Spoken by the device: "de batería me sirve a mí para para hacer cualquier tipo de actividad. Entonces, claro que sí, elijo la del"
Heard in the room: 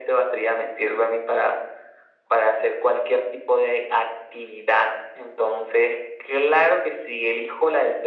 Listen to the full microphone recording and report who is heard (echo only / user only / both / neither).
echo only